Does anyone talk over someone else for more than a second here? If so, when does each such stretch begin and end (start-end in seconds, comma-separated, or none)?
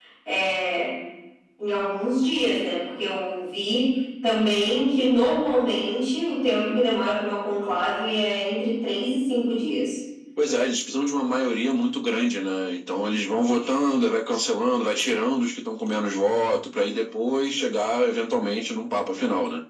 none